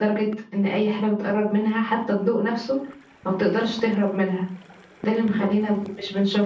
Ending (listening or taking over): listening